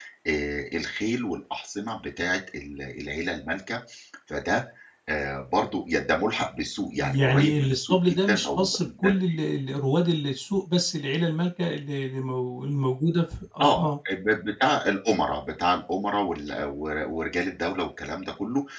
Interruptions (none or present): present